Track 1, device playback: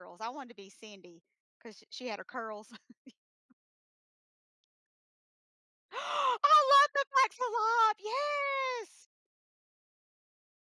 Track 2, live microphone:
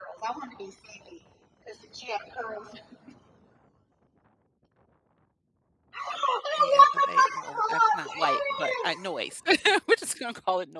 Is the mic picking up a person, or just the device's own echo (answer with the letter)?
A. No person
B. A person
B